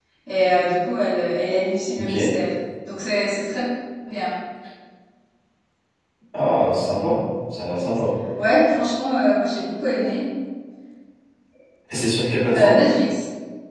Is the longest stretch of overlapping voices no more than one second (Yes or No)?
Yes